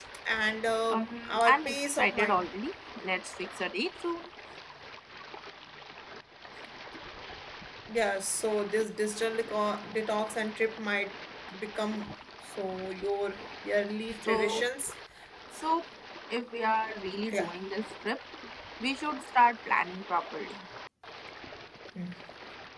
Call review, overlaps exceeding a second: present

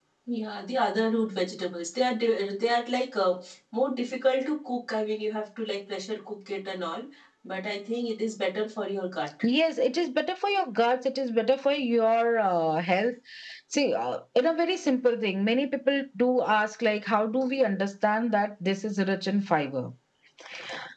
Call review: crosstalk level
none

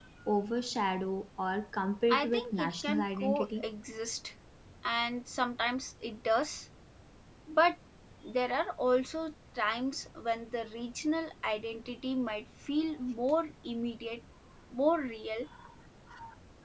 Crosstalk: present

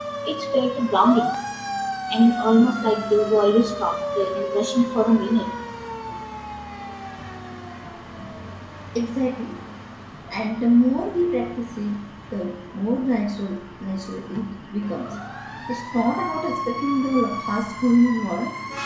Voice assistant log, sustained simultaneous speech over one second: none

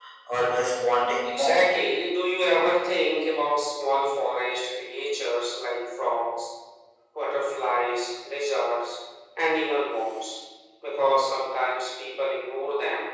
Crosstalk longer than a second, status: none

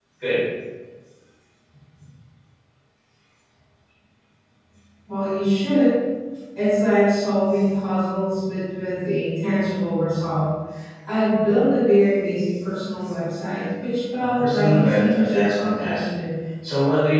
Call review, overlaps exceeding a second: present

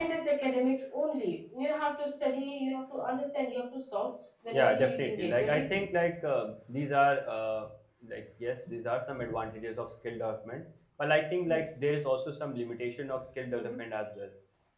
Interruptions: present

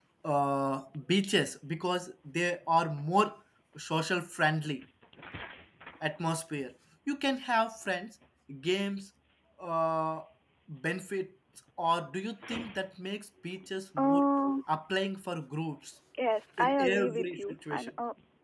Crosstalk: present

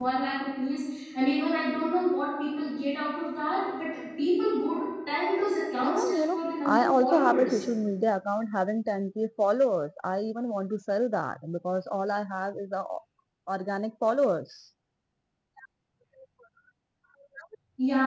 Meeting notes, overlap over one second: present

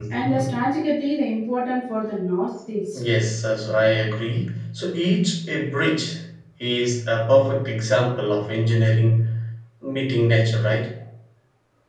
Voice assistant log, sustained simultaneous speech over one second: none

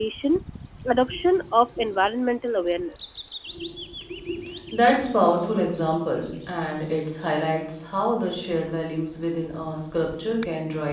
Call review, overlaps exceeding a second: none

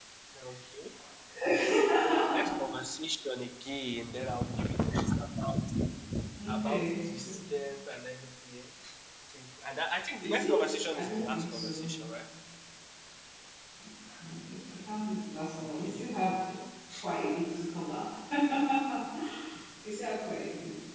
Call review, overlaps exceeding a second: present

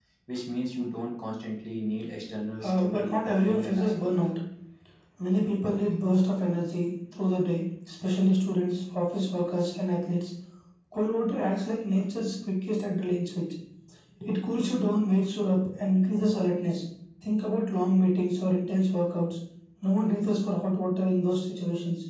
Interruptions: present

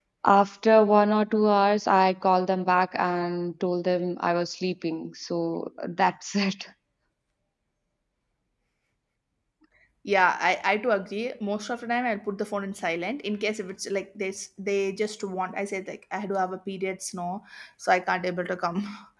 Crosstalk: none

